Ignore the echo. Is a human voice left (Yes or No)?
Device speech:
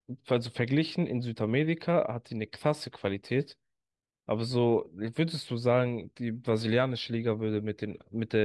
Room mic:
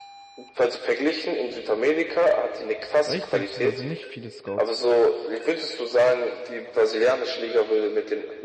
Yes